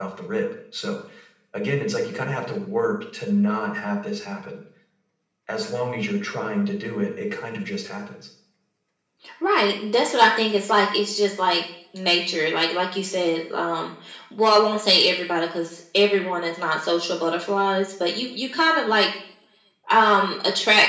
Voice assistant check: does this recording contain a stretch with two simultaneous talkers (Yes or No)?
No